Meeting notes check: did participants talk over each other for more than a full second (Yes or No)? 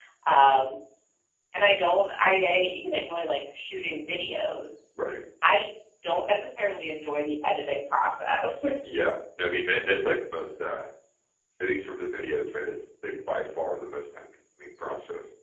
No